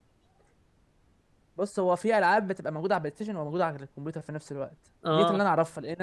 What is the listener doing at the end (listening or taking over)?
listening